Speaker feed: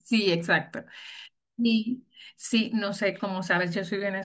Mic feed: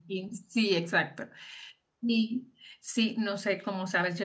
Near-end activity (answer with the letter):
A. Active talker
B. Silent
B